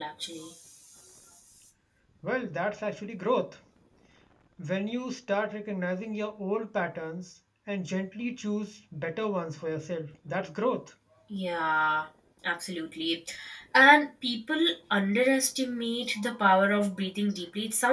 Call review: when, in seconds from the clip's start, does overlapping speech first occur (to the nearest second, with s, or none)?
none